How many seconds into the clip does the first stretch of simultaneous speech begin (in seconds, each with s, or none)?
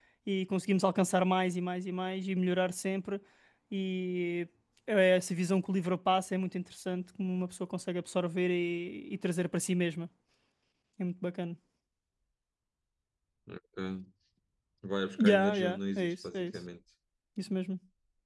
15.2 s